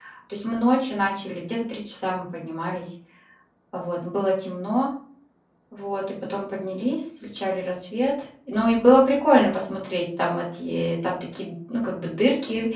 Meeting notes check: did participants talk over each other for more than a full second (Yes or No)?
No